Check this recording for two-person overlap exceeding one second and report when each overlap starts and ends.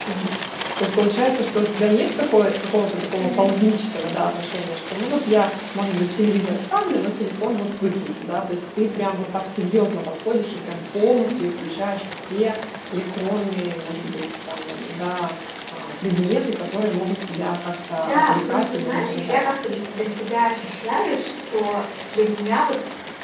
17.9-19.4

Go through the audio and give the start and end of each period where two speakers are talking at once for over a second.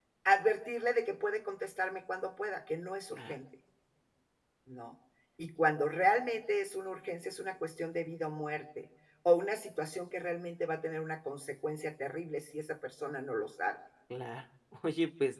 none

